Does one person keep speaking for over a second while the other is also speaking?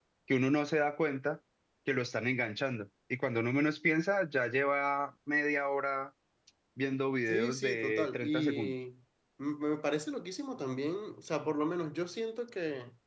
Yes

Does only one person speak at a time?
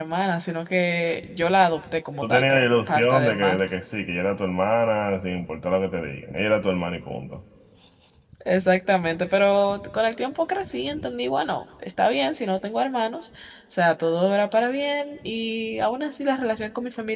No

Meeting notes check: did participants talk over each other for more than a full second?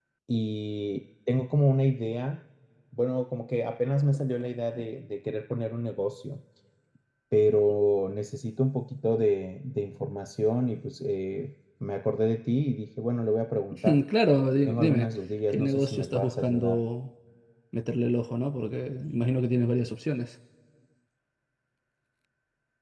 Yes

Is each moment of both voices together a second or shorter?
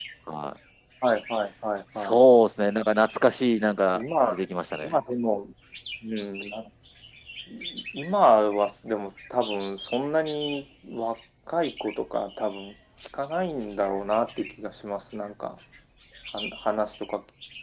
Yes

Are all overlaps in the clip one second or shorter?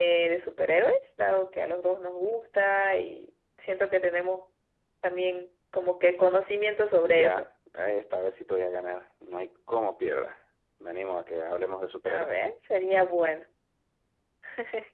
Yes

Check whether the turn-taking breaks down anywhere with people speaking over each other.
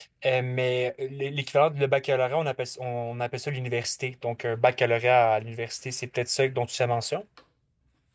No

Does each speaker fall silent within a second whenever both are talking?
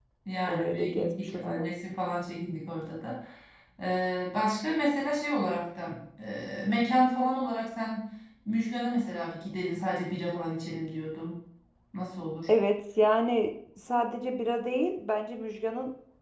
No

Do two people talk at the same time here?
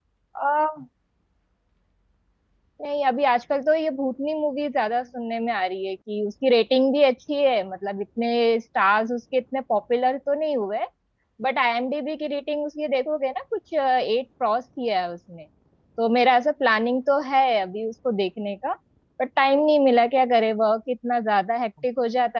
No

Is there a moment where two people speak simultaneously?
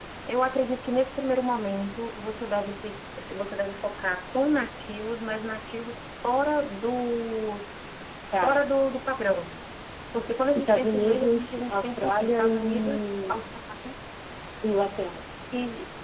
Yes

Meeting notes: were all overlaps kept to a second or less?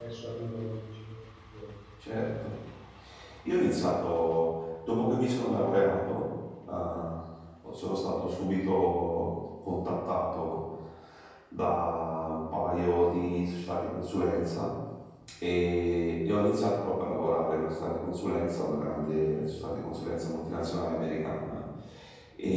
Yes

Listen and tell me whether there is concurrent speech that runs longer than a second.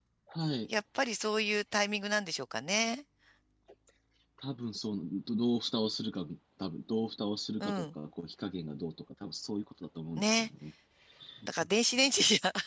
No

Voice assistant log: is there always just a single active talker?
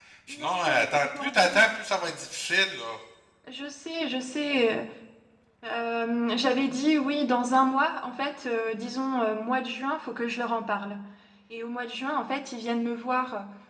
No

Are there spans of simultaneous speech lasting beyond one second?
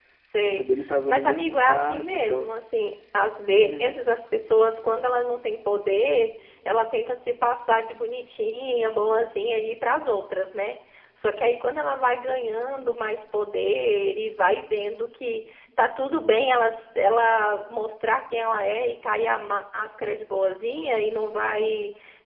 Yes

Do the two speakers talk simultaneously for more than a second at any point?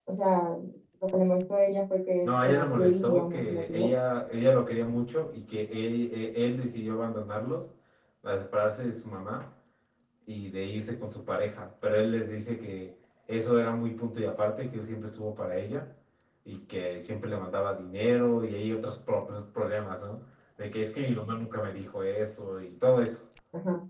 Yes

